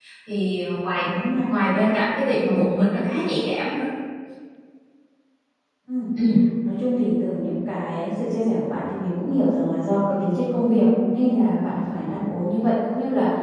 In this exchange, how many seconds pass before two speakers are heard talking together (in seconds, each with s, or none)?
none